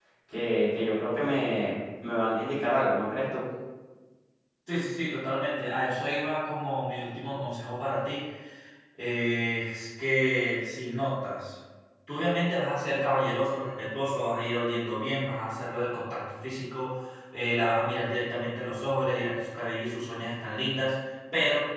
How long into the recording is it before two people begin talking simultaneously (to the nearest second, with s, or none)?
none